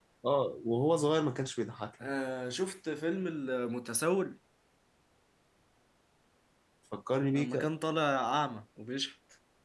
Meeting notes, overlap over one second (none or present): none